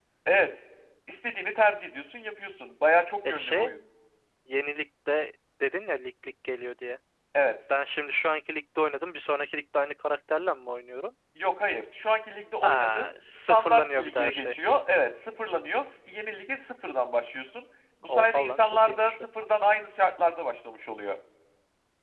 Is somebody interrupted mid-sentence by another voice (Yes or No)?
Yes